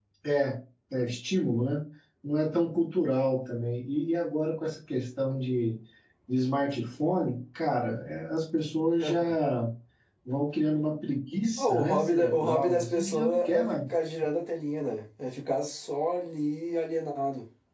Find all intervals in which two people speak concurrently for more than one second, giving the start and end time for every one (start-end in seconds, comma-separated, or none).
11.6-13.7